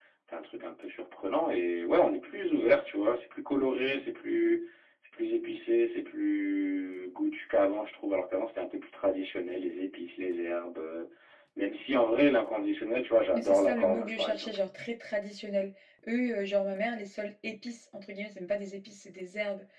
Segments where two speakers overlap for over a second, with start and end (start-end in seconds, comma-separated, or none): 13.3-14.6